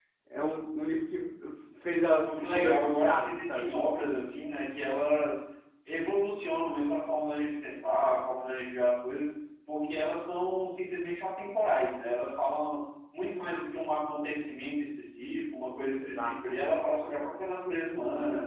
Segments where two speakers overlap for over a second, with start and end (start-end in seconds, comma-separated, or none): 2.2-3.7